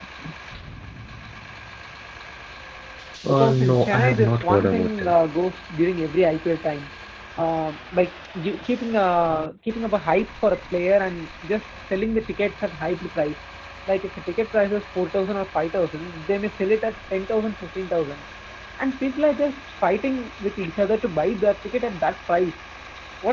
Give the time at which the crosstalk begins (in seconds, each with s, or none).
3.3 s